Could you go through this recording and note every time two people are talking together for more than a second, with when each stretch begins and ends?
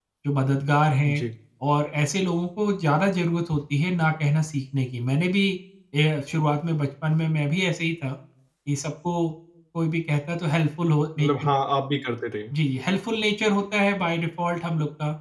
none

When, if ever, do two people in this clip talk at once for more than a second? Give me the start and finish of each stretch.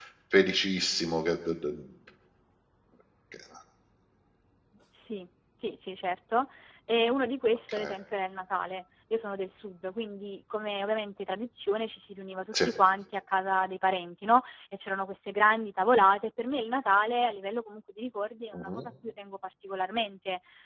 none

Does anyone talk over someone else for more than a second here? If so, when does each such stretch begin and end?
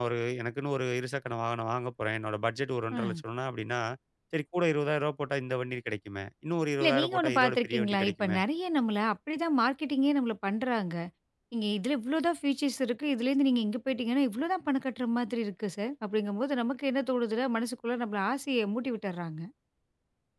6.8-8.4

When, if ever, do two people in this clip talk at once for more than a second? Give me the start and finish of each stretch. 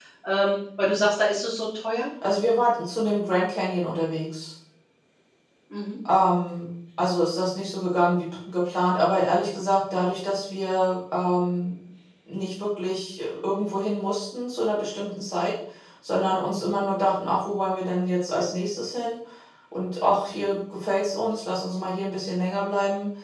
none

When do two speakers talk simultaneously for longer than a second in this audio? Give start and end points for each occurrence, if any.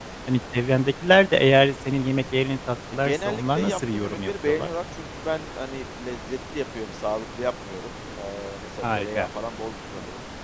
2.9-4.7

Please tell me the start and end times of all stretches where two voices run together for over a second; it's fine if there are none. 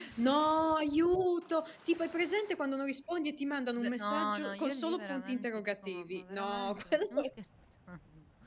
3.8-7.3

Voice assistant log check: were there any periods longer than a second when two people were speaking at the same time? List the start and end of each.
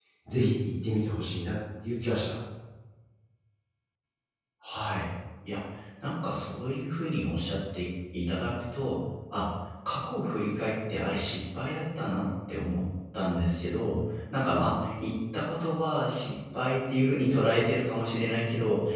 none

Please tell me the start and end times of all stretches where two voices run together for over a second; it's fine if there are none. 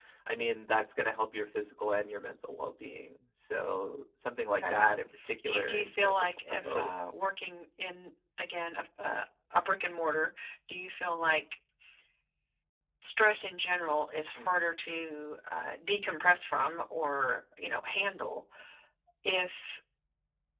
5.5-6.9

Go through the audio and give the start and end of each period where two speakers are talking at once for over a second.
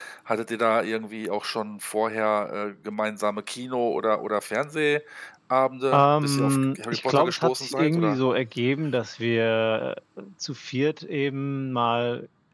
5.9-8.2

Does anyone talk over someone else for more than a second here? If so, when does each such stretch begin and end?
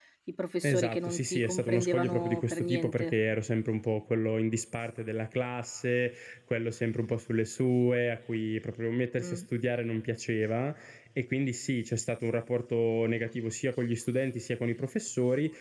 0.6-3.1

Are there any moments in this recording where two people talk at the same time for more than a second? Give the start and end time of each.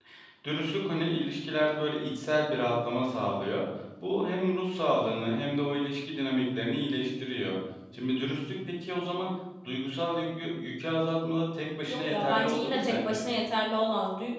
11.9-13.2

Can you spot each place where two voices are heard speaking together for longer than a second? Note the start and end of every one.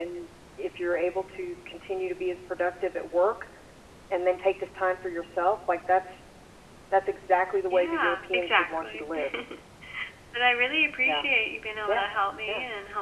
7.7-9.0

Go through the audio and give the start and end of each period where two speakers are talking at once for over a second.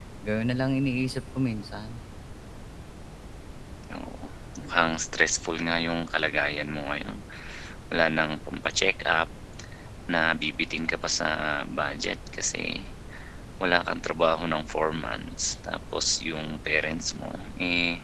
none

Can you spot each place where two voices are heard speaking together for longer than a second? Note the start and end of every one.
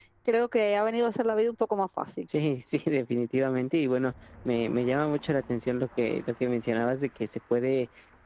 none

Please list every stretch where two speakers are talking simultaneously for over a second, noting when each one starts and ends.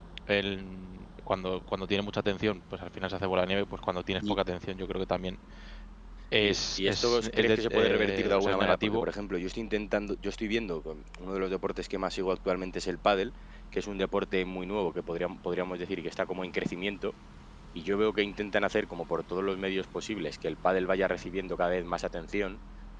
6.4-9.0

